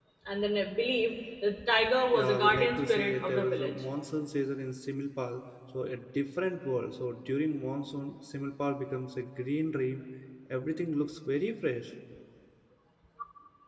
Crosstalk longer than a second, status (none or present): present